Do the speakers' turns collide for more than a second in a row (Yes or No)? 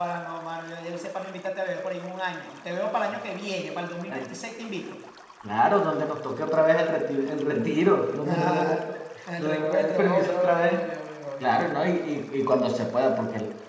Yes